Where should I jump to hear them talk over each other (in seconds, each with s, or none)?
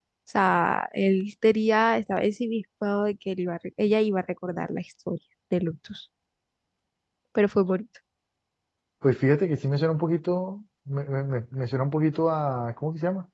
none